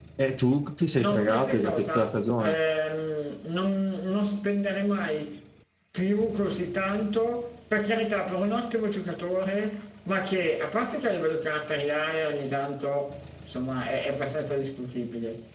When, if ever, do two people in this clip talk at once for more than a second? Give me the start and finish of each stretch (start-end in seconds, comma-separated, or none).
1.0-2.6